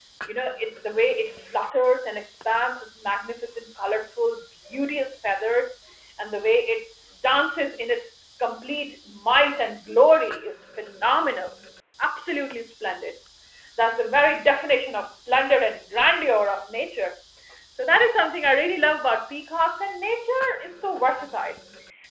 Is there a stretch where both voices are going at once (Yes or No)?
No